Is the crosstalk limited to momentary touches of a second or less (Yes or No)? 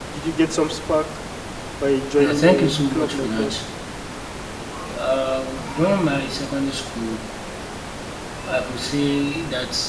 No